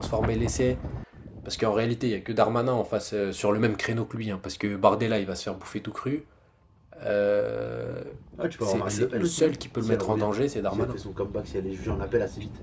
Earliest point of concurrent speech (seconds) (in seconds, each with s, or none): 8.6 s